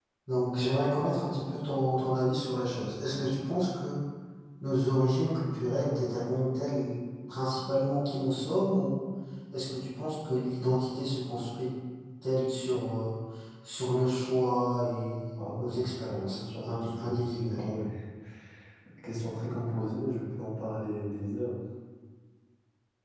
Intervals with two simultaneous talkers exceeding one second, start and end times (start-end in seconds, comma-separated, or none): 15.4-17.1